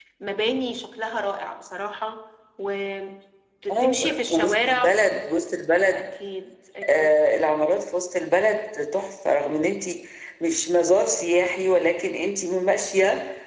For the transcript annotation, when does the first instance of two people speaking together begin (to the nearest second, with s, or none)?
4 s